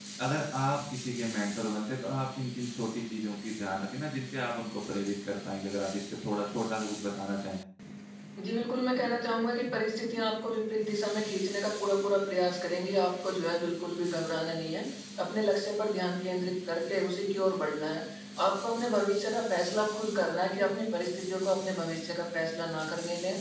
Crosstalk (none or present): none